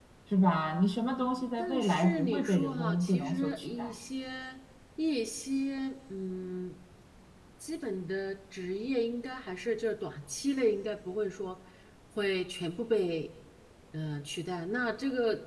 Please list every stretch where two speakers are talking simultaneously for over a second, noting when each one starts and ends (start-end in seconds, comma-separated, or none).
1.6-4.0